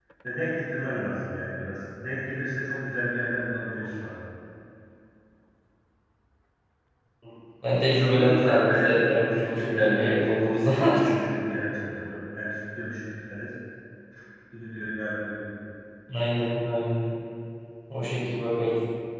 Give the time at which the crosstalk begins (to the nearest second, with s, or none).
8 s